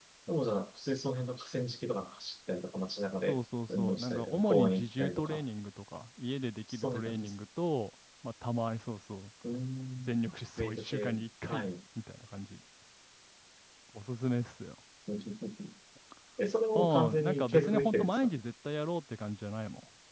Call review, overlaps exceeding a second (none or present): present